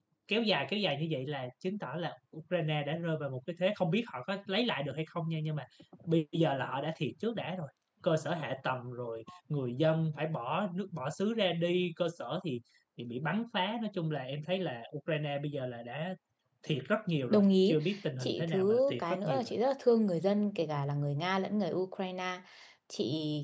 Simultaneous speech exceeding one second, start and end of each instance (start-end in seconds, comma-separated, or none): 18.2-19.5